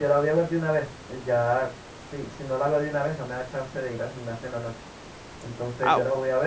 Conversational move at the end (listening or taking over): listening